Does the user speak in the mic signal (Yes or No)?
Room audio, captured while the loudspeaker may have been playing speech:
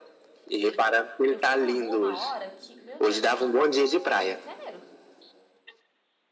Yes